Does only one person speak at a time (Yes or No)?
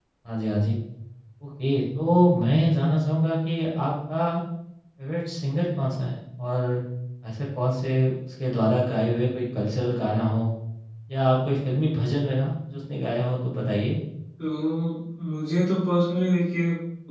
Yes